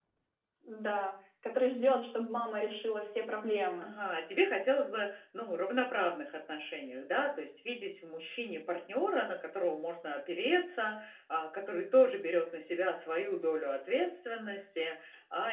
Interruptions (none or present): none